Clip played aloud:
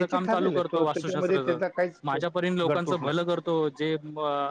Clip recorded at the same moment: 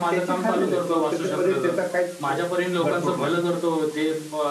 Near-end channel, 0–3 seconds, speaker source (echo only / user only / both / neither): echo only